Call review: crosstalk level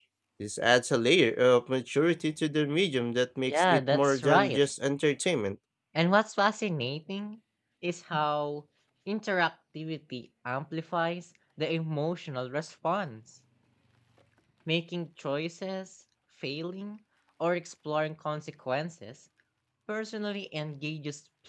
present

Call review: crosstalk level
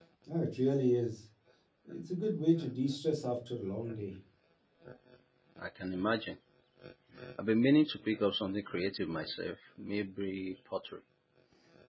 none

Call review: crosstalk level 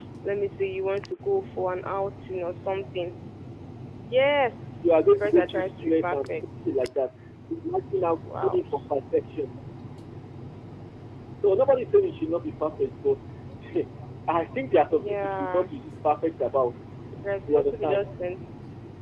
present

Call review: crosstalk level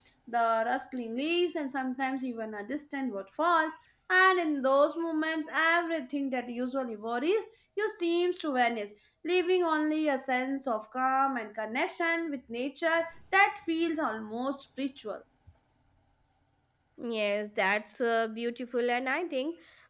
none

